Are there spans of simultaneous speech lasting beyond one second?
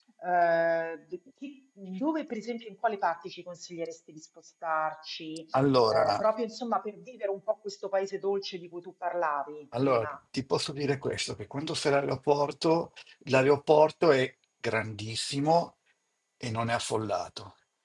No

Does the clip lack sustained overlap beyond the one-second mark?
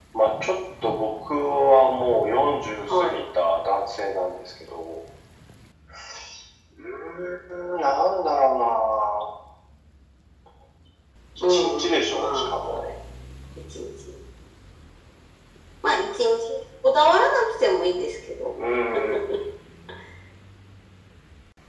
No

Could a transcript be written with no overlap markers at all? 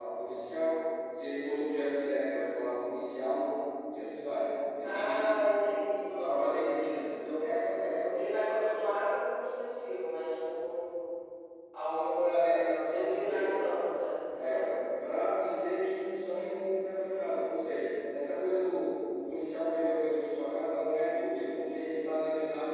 No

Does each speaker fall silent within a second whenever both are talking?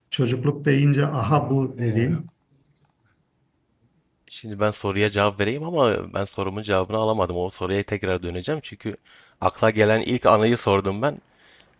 Yes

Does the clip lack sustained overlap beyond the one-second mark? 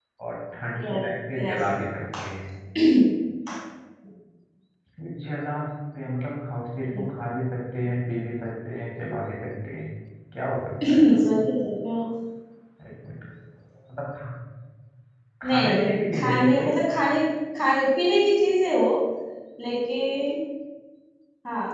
No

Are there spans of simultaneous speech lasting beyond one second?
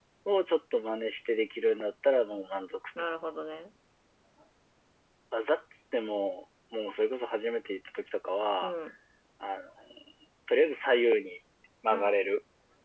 No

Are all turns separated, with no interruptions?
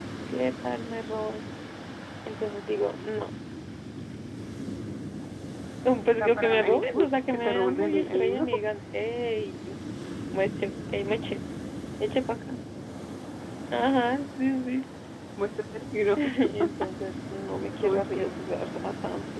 No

